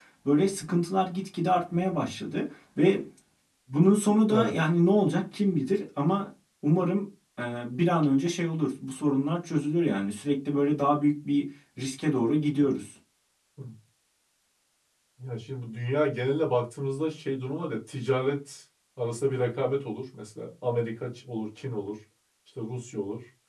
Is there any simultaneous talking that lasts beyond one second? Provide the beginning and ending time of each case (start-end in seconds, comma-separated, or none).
none